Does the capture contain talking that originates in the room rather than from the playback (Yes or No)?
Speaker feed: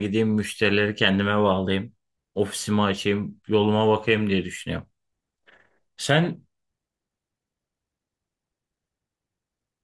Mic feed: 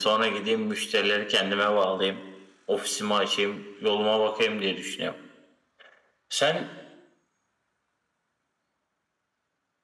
No